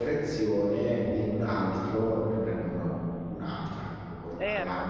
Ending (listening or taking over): taking over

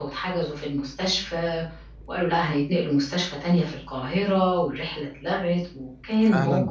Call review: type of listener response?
taking over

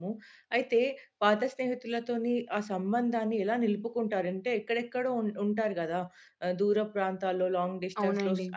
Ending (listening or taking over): listening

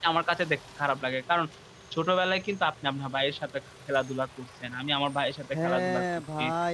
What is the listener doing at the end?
taking over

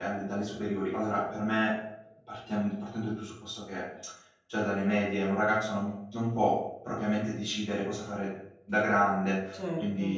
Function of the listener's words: listening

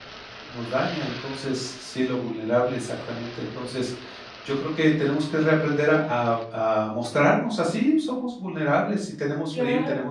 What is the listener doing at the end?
listening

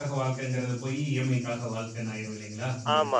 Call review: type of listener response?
taking over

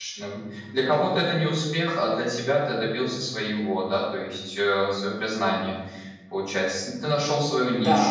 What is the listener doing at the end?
taking over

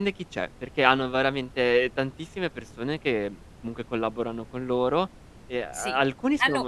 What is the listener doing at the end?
taking over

